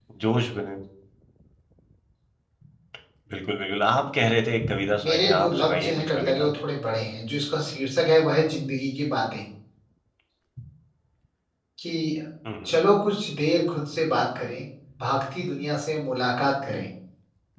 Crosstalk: present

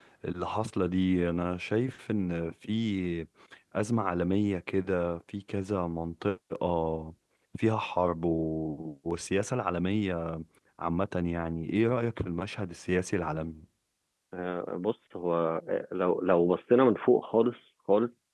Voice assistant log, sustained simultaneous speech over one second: none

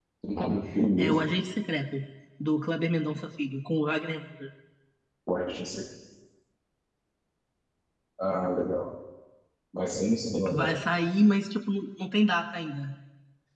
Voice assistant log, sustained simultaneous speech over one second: none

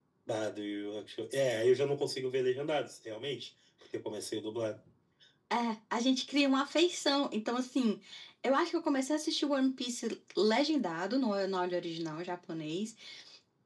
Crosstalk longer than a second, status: none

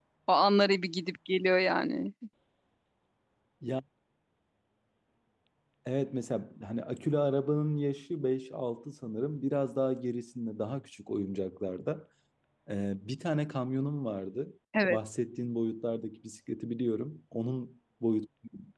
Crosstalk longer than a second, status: none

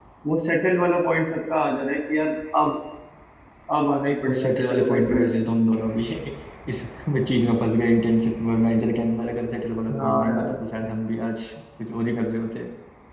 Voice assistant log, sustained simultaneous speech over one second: present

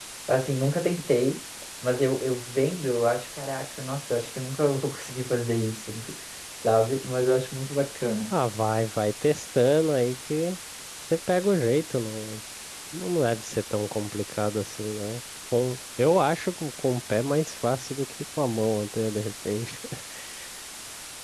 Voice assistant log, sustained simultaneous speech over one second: none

